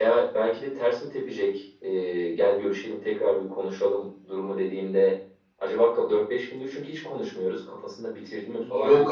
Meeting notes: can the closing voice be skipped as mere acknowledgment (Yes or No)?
No